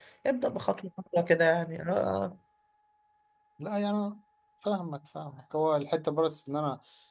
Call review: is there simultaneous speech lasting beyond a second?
No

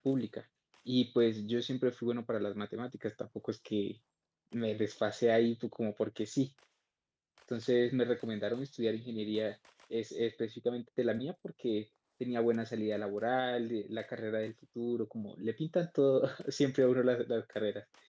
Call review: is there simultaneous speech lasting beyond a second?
No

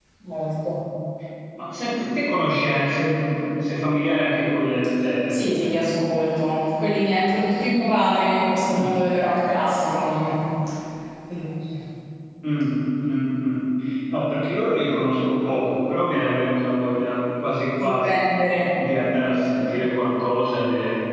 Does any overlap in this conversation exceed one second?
No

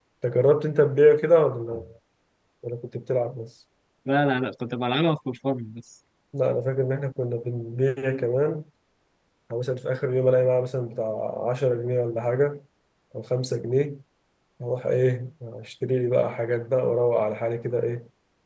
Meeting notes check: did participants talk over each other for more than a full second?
No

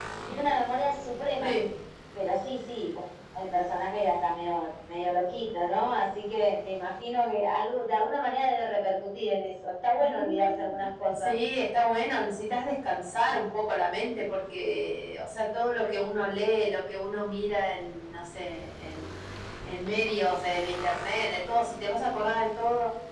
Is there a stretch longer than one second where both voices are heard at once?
Yes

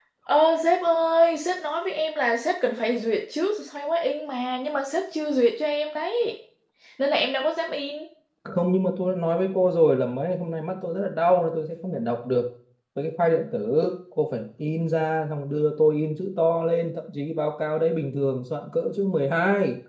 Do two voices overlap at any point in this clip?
No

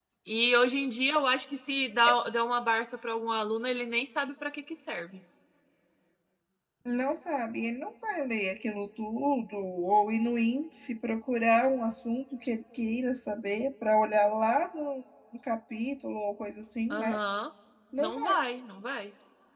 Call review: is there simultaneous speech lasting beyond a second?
No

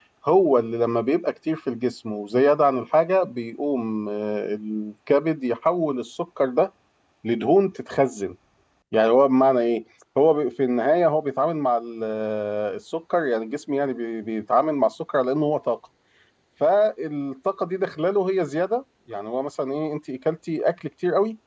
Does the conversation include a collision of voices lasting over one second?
No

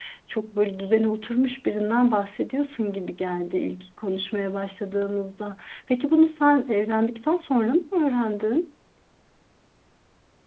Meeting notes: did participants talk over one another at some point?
No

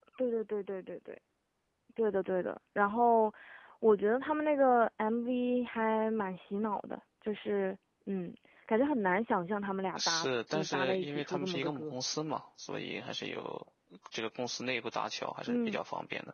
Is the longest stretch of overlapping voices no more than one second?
No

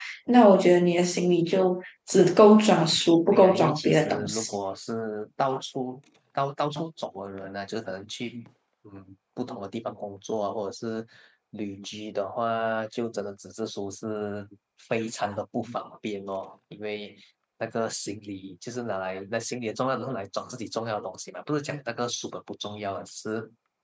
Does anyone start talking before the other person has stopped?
Yes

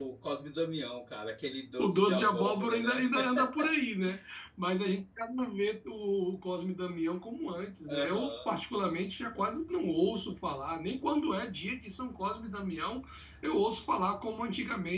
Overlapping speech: Yes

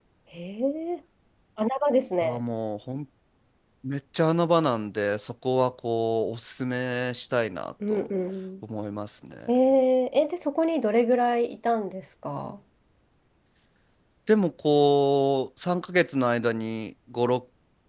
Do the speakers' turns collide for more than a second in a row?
No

